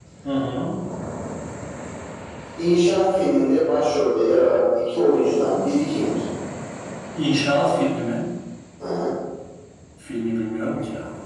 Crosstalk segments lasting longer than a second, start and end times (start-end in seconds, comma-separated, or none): none